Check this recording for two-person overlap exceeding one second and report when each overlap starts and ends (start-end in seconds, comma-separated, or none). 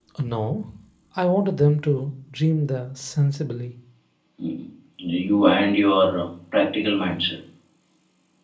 none